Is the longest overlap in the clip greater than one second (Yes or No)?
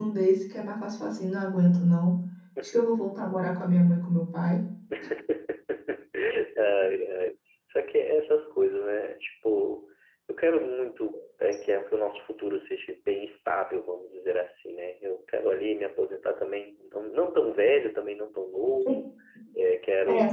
No